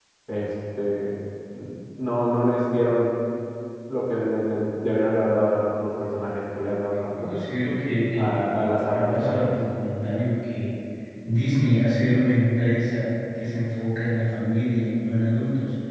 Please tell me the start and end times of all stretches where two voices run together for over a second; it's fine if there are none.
8.1-9.5

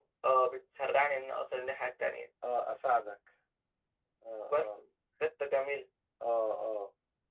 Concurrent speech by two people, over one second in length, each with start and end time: none

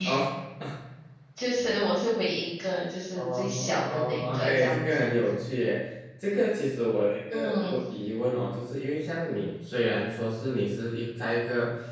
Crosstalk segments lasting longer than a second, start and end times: 3.2-5.1

